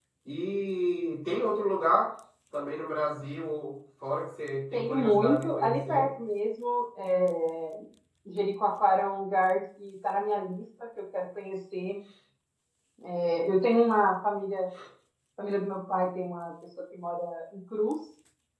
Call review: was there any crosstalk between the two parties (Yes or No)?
Yes